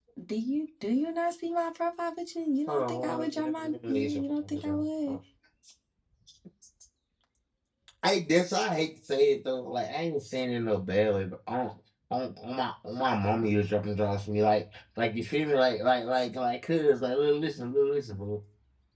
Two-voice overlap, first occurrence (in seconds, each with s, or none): 2.7 s